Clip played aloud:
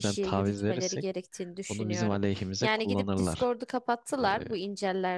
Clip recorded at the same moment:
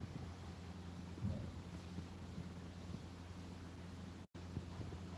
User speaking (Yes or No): No